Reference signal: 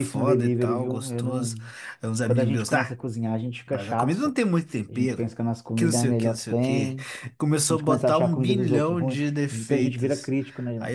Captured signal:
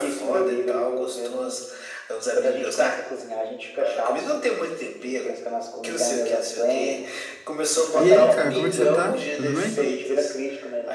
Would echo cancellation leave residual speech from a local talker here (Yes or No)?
Yes